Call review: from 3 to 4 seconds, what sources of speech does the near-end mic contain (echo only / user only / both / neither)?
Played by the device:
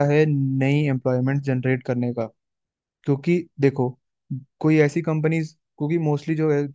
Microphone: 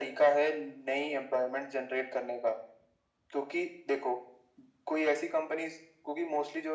echo only